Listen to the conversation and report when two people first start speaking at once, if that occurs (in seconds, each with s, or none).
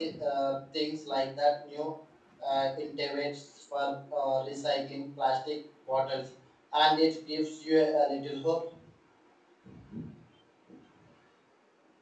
none